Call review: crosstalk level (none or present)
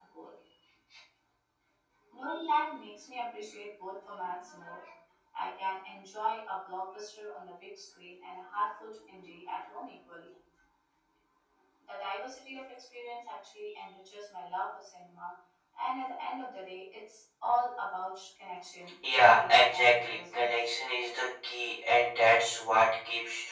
present